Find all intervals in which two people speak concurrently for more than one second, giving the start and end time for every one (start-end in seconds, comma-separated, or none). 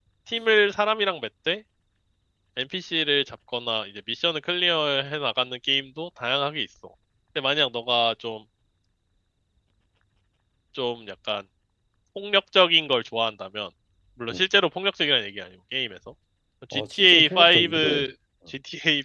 16.7-18.0